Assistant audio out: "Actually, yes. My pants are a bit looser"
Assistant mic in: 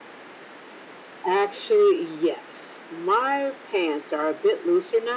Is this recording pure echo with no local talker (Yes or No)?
Yes